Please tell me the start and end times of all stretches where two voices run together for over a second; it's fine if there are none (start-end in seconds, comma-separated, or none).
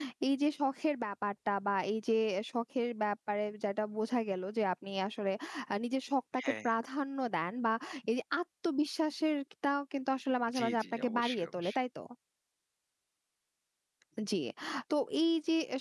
10.6-11.8